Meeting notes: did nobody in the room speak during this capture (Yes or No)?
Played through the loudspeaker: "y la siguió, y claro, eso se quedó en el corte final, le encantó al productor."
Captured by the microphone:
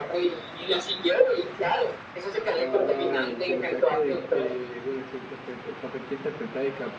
No